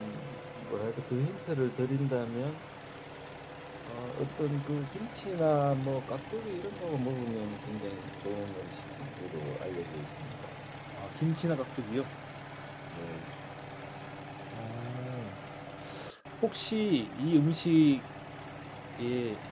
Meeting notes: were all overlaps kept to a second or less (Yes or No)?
Yes